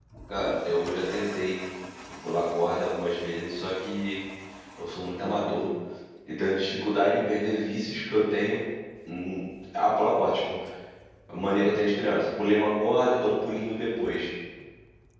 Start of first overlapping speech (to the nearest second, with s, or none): none